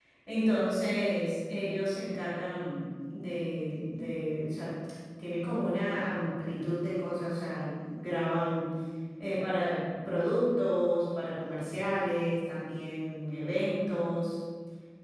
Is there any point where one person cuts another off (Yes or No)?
No